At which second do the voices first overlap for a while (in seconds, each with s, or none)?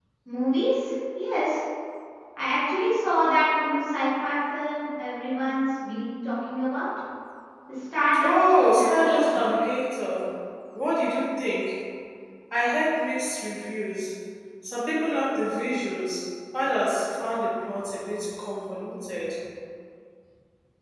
8.2 s